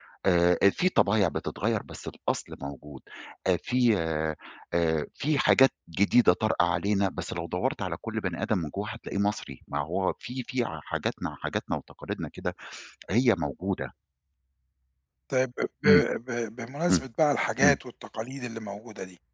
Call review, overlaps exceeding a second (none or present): none